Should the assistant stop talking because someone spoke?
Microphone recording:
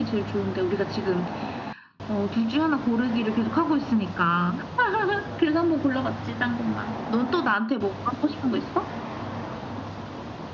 No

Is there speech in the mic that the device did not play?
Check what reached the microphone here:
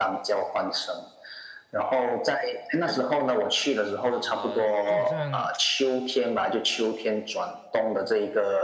Yes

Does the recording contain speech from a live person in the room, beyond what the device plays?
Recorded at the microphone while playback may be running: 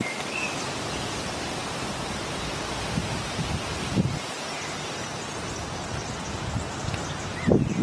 No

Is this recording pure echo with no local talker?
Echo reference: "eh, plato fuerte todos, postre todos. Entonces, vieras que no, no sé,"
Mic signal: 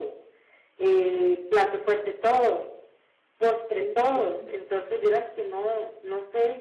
No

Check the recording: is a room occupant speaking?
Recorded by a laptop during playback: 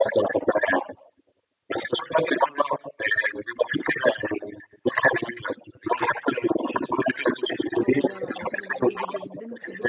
Yes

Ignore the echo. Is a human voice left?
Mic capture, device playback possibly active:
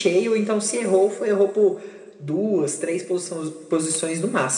No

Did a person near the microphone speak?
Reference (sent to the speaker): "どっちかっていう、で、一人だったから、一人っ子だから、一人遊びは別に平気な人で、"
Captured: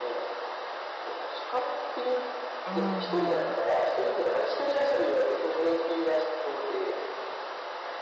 Yes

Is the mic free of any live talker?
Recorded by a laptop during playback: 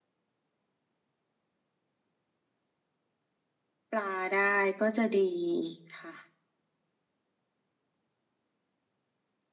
No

